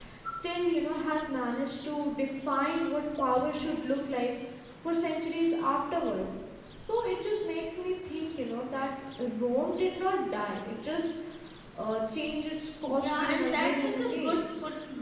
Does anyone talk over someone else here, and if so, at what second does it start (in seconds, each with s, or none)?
12.8 s